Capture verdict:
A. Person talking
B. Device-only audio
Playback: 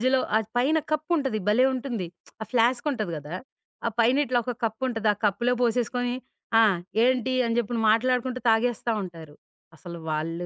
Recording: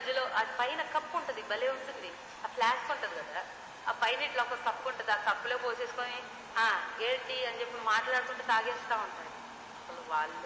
B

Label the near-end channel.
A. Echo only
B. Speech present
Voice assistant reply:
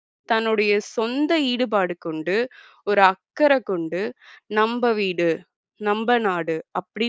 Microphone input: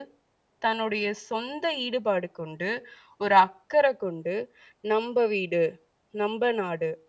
A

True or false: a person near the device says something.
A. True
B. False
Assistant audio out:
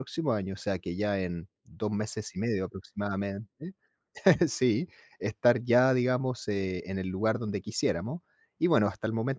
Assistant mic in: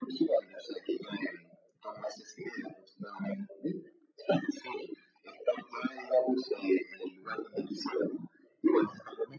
B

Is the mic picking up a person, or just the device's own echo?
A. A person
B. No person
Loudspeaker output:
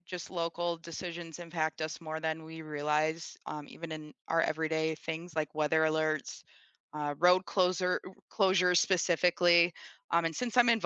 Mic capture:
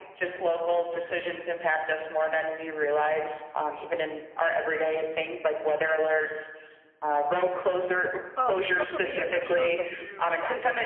A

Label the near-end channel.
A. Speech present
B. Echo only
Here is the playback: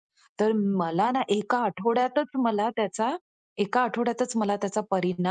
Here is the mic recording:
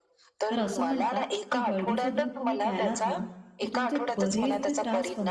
A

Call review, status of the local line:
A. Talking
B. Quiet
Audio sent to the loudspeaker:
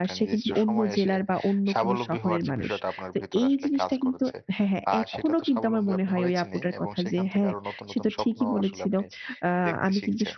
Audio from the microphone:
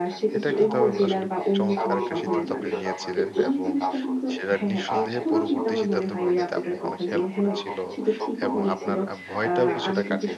A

